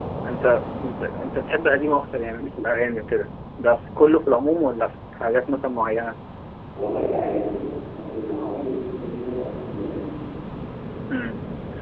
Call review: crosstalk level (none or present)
none